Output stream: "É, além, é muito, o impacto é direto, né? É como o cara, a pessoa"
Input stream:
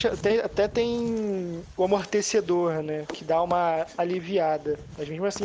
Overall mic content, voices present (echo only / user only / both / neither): user only